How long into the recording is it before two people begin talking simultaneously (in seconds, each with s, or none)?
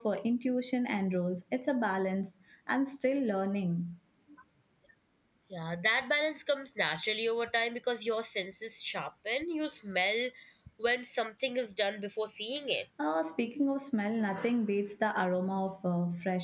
none